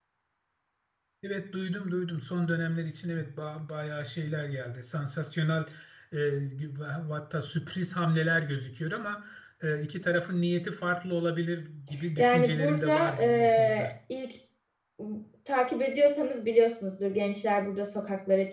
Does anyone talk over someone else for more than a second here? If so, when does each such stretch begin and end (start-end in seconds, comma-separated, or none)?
12.2-13.9